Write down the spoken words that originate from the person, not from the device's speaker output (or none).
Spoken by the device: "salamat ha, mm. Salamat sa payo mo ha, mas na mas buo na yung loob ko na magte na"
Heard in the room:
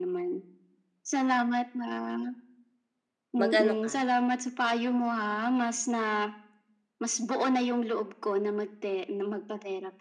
mag-ano ka